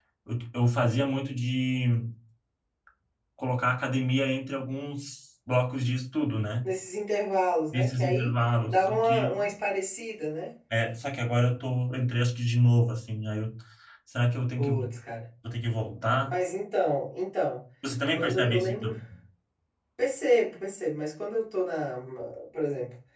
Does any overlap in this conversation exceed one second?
Yes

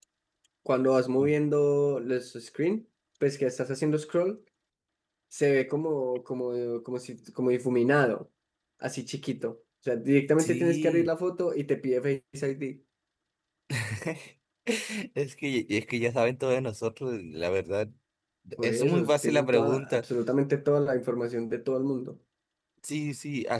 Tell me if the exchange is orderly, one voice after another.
No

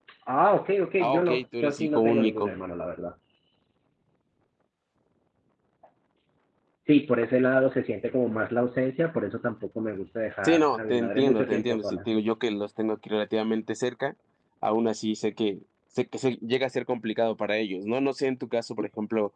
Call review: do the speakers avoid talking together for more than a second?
No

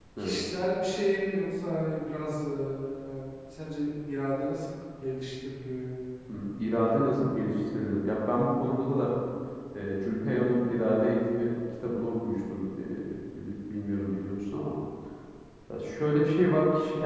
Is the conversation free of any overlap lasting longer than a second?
Yes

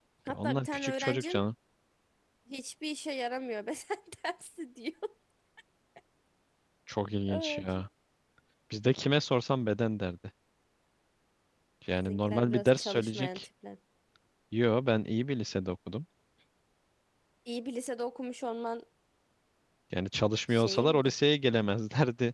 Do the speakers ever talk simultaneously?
Yes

